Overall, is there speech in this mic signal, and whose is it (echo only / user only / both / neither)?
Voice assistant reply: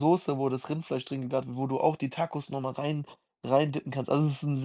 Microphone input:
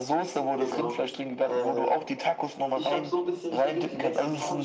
both